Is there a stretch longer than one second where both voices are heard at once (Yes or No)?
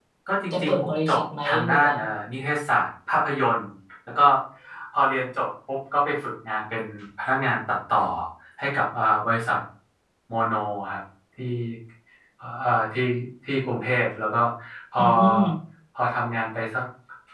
Yes